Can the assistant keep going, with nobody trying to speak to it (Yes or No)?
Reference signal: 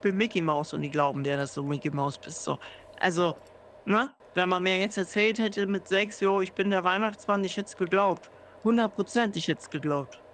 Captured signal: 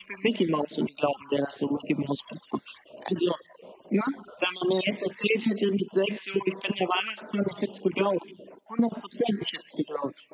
Yes